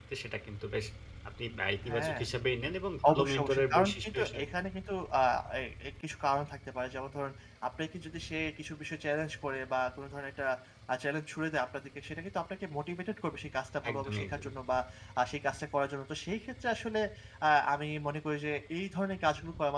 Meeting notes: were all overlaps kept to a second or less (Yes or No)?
No